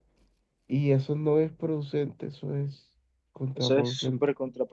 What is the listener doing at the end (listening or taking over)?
taking over